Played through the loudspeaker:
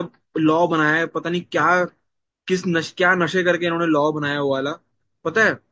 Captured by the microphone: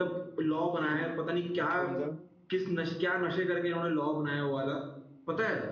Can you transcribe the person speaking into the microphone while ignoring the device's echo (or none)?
हम्म, कौन सा